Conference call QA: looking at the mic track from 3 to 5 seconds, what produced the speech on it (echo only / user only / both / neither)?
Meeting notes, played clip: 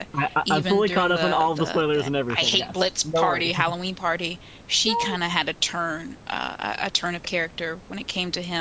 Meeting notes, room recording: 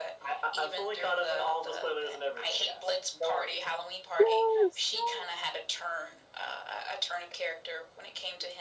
both